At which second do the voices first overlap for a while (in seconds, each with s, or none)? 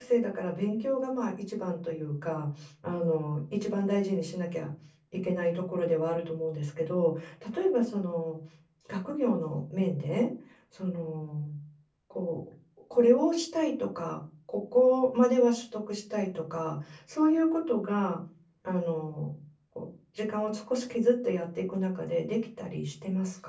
none